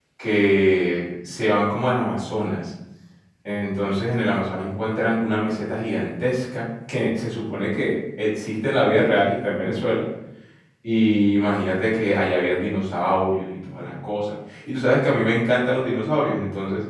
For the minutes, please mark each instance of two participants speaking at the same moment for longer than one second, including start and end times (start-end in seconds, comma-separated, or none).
none